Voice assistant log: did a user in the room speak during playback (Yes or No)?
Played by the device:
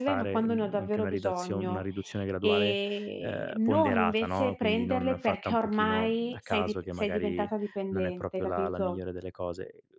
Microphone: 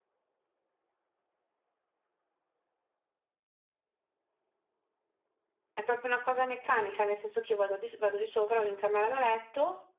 Yes